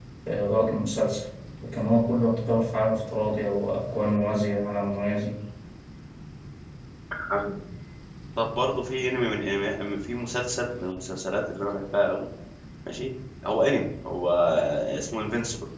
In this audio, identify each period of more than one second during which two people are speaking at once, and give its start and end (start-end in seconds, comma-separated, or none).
none